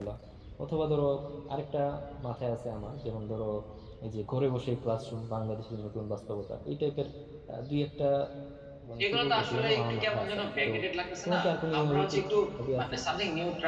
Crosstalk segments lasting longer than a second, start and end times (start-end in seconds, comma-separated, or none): 9.0-10.7